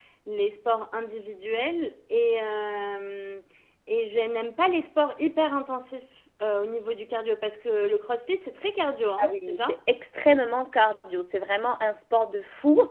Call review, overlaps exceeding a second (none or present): none